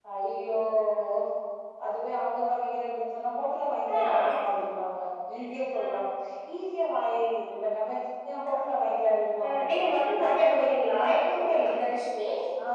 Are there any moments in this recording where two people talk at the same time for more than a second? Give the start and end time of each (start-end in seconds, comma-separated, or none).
10.2-11.7